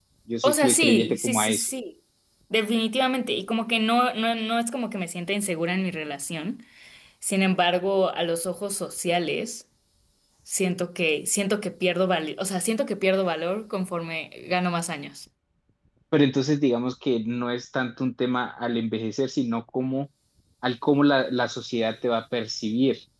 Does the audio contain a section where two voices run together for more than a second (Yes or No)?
Yes